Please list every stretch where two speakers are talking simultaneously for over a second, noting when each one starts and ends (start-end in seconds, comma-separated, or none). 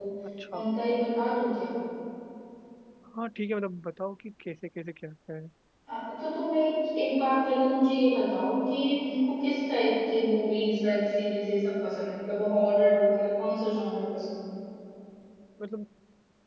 none